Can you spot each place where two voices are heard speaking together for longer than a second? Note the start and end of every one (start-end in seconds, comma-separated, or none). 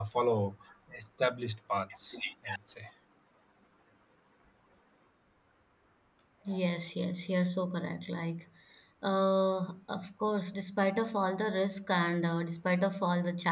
none